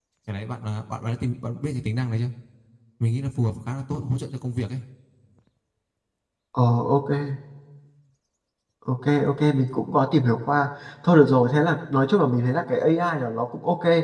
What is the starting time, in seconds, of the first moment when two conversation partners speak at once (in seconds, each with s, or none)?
none